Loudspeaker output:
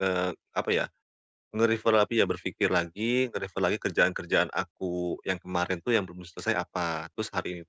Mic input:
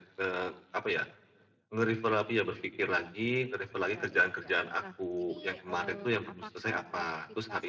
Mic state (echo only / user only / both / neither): both